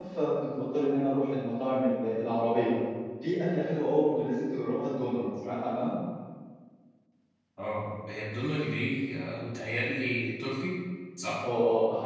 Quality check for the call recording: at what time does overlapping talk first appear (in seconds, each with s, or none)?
none